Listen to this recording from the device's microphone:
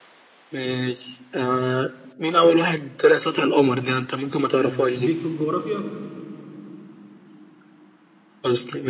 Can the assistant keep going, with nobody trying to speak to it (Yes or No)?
No